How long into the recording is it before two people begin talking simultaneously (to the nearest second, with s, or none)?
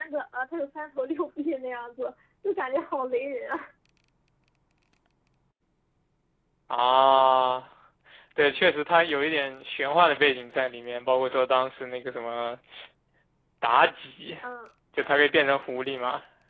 none